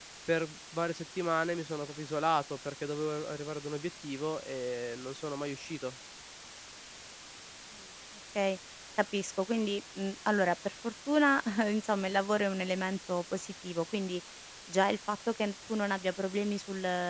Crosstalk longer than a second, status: none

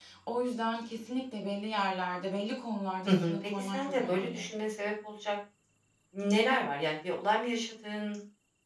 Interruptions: present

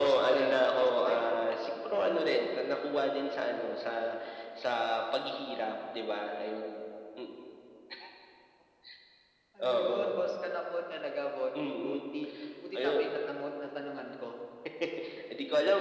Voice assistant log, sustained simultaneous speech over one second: present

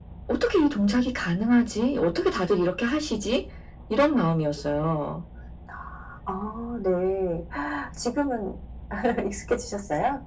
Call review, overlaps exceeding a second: none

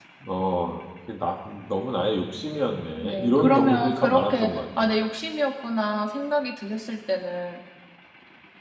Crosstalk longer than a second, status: present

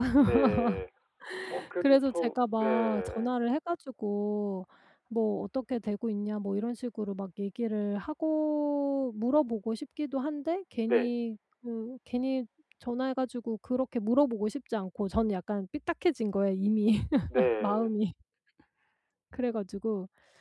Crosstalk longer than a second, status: present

